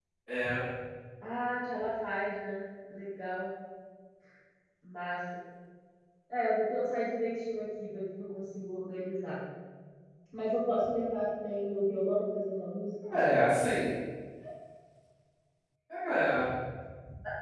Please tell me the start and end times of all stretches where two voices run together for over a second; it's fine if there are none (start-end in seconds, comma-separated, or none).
none